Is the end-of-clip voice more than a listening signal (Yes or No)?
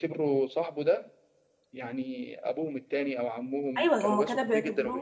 Yes